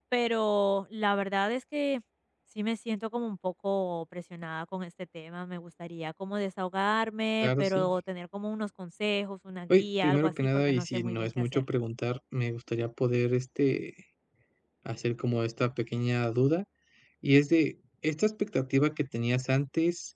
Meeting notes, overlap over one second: present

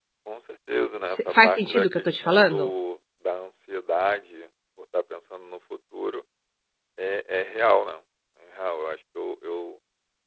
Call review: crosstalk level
present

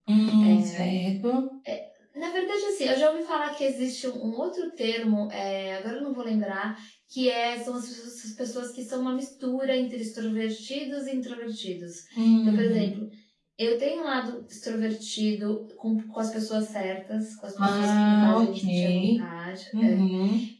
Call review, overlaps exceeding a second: present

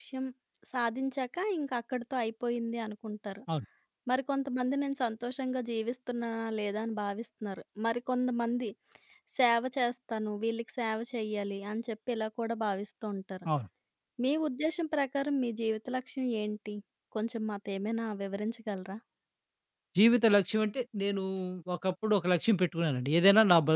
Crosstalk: none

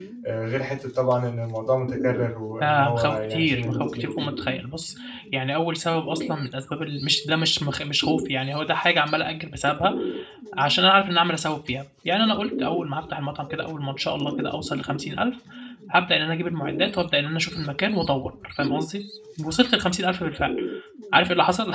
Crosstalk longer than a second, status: present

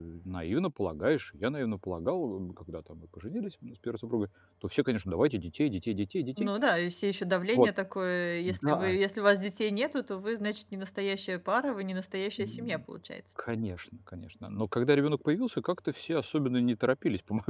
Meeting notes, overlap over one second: none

